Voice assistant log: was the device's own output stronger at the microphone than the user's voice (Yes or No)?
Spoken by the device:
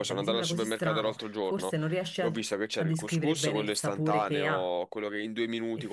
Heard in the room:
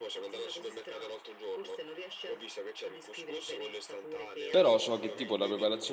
No